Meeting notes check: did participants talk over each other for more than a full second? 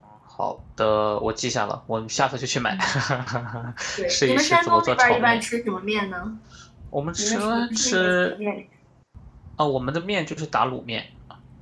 Yes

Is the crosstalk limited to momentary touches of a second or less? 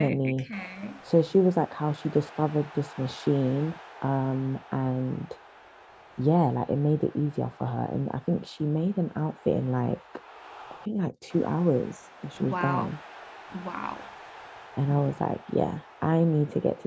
Yes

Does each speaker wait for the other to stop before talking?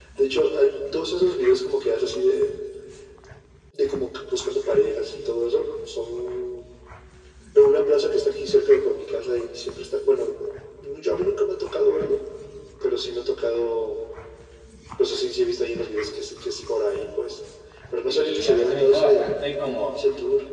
No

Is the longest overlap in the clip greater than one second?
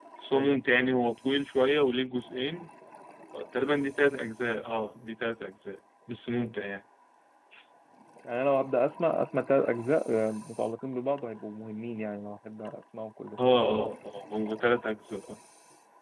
No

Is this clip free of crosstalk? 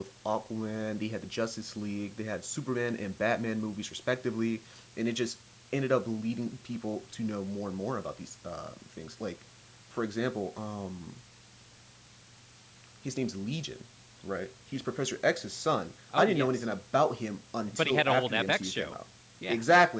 No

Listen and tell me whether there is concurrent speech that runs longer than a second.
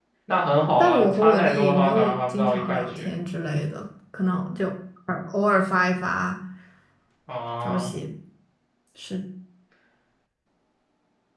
Yes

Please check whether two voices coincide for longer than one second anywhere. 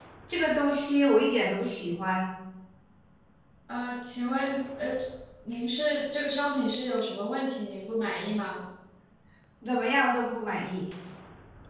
No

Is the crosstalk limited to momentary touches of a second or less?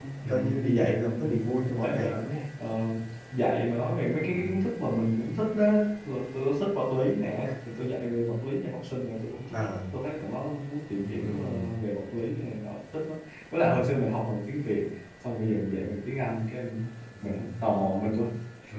No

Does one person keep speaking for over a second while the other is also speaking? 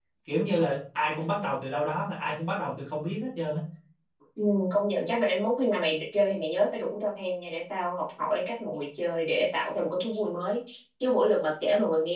No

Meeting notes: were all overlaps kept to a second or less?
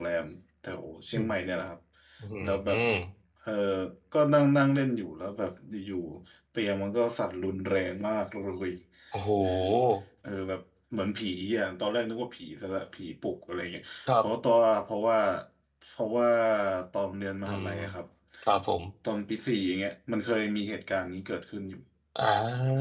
Yes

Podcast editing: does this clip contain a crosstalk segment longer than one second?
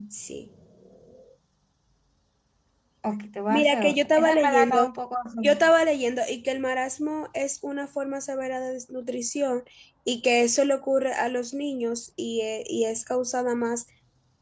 Yes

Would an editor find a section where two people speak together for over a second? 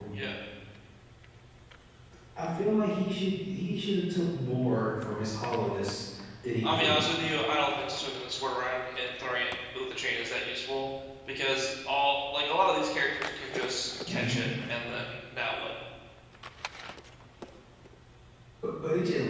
No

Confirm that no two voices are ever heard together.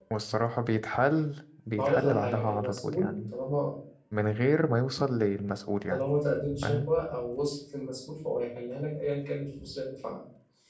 No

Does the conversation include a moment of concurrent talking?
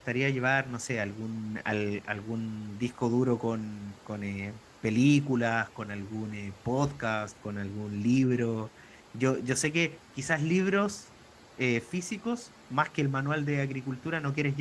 No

